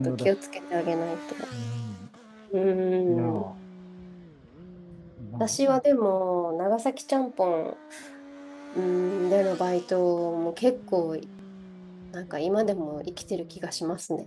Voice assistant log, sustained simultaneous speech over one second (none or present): none